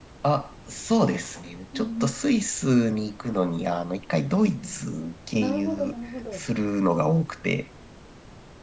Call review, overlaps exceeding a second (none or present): none